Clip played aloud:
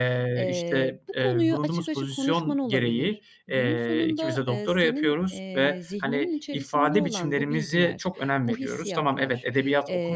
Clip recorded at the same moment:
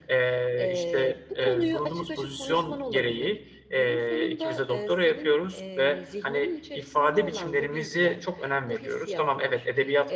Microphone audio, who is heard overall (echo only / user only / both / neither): echo only